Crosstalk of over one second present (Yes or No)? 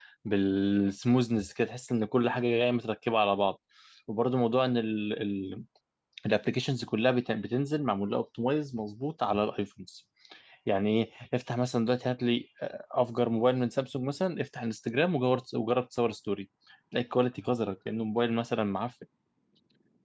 No